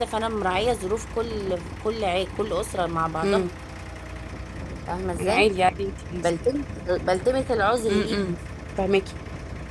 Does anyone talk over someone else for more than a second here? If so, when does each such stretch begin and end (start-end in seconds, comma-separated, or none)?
none